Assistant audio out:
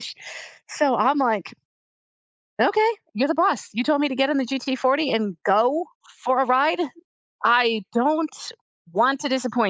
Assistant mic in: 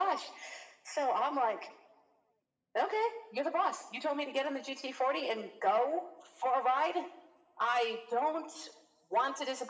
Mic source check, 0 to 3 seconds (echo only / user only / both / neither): echo only